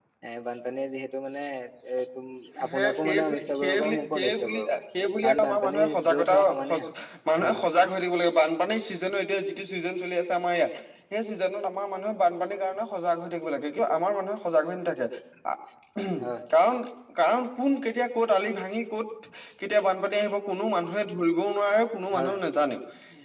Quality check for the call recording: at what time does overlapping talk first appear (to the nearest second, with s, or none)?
3 s